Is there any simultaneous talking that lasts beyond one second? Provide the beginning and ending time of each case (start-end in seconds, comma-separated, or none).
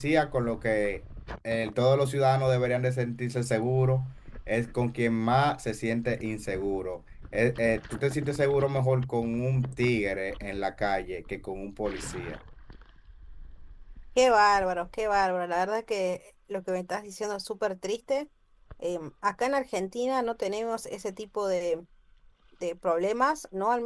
none